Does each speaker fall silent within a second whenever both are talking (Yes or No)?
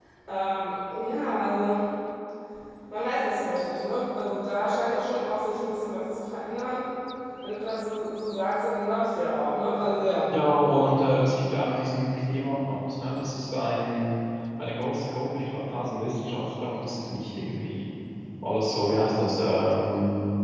Yes